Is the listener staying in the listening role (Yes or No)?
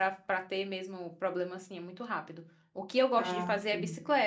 Yes